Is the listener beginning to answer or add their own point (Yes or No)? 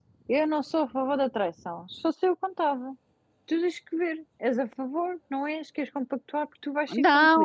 Yes